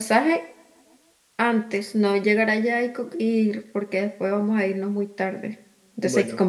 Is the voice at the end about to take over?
No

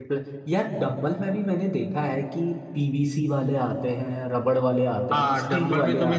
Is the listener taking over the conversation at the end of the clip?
Yes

